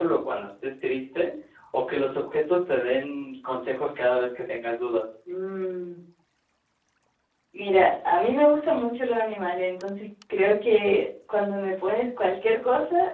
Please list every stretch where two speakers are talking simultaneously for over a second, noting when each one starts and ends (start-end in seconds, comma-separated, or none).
none